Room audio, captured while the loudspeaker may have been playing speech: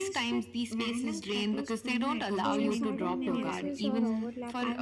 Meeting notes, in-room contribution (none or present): present